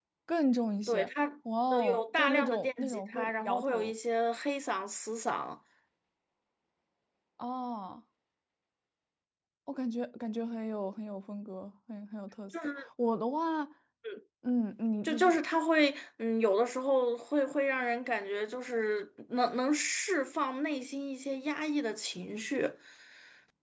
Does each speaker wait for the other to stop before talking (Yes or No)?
No